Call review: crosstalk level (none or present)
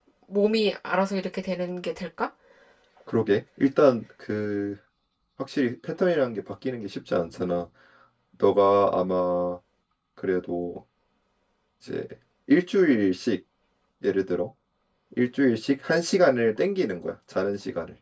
none